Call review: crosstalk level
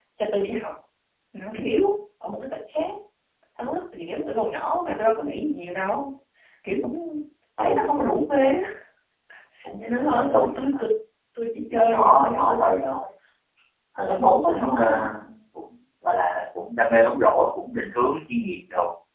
present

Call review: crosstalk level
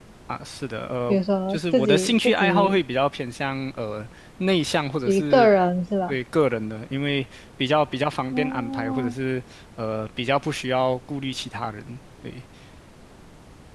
present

